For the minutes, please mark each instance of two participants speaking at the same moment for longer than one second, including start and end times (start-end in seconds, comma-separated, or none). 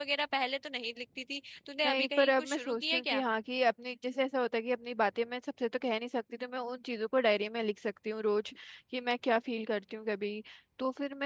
1.8-3.2